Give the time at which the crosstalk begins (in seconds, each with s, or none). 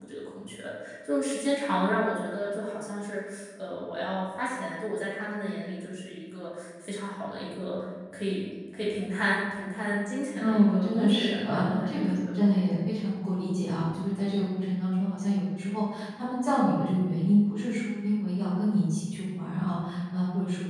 10.4 s